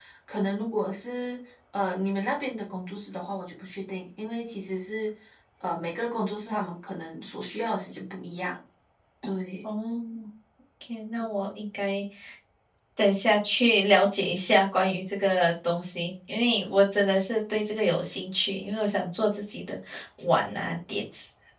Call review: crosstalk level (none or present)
none